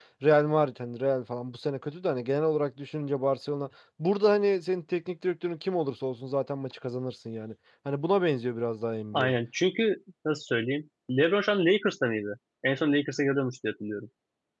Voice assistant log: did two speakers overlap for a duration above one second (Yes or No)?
No